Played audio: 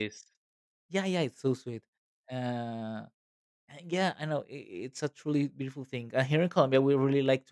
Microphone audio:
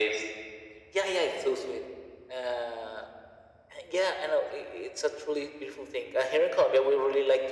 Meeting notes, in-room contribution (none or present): none